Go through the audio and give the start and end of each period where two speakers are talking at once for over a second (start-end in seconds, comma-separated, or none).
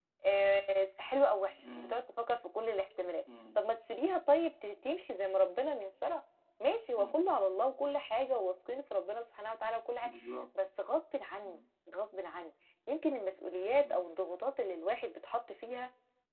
none